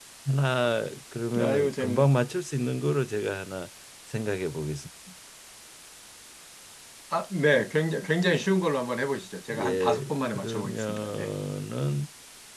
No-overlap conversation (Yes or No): No